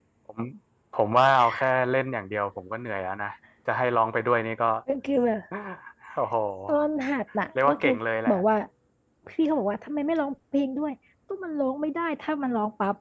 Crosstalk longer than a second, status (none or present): none